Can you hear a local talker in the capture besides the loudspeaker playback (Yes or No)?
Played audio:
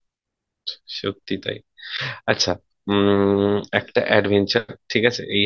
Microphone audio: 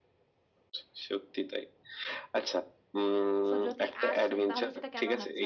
Yes